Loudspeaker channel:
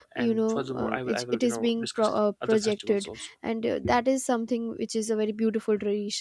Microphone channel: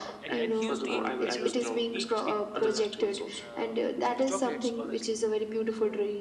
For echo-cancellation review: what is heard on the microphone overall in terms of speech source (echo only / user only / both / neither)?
both